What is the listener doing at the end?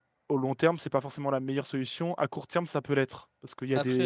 listening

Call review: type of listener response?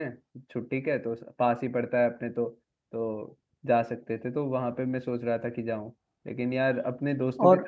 listening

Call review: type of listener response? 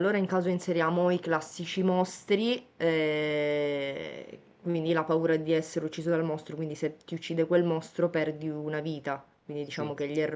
listening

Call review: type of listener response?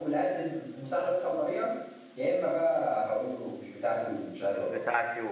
taking over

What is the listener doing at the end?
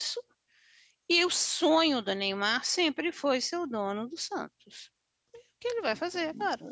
taking over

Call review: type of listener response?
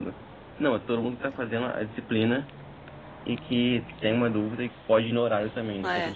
taking over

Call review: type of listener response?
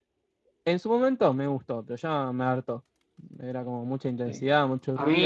taking over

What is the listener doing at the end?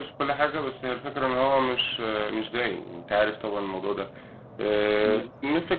listening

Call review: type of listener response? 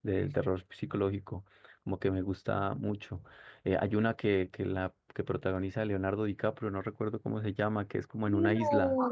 taking over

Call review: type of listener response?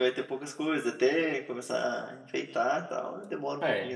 taking over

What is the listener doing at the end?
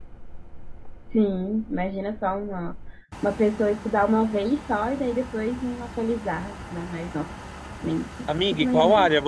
taking over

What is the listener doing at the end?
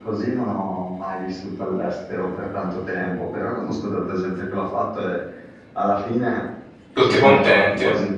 listening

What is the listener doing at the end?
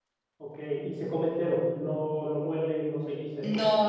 taking over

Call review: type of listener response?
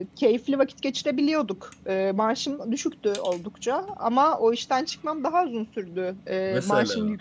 listening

